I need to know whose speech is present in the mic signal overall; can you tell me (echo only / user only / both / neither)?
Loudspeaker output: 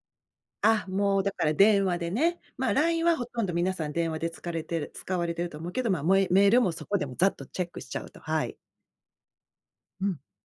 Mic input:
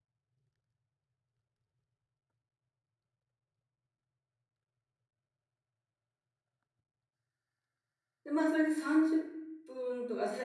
user only